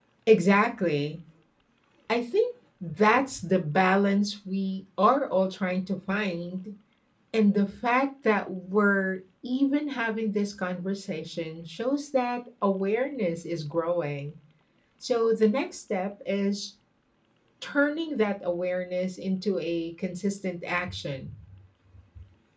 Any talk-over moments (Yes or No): No